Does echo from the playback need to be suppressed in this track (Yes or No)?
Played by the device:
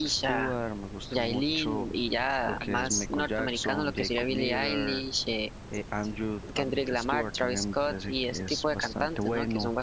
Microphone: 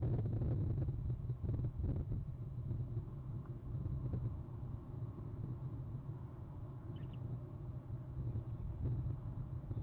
No